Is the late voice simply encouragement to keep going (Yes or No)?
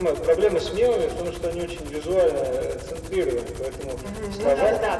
No